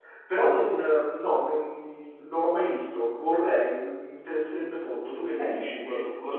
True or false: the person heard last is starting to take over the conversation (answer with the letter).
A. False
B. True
B